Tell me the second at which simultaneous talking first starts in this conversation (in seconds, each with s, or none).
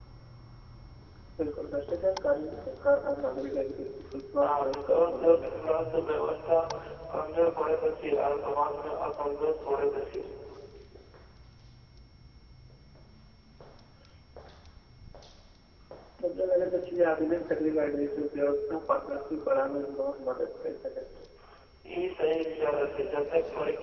4.4 s